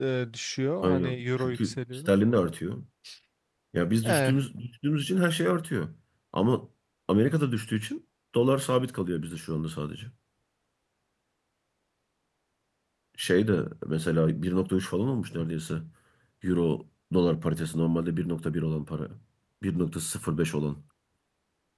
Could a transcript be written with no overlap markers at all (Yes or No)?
No